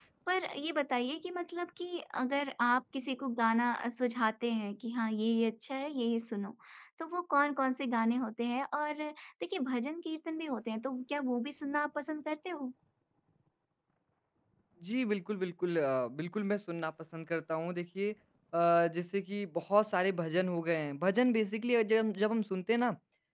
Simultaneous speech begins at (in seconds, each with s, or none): none